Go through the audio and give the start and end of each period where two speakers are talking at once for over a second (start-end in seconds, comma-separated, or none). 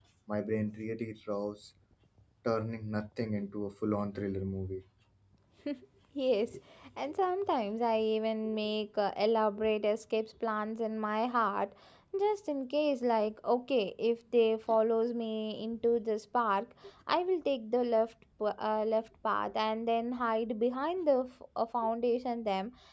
none